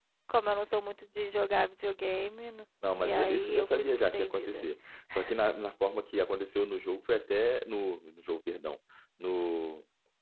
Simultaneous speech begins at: 2.8 s

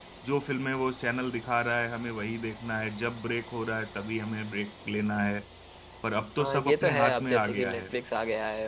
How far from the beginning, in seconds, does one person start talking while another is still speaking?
6.4 s

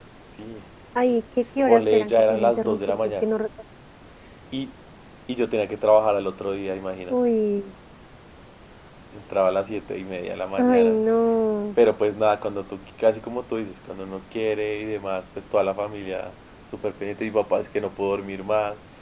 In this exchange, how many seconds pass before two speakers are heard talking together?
1.7 s

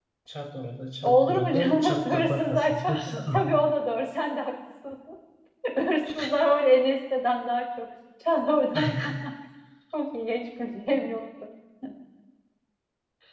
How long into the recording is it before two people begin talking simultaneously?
1.0 s

